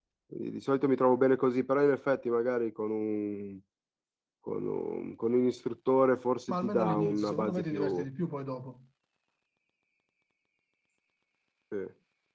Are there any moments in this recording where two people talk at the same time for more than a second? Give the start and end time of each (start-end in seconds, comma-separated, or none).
6.5-8.0